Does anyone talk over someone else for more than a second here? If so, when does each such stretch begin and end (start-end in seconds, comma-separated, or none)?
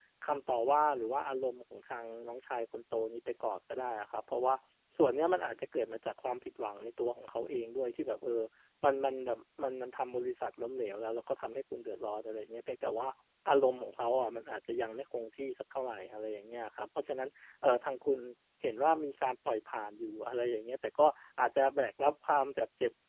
none